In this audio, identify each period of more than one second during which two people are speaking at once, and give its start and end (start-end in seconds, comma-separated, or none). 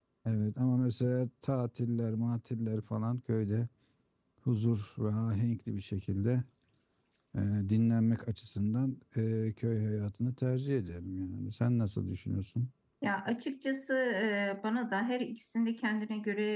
none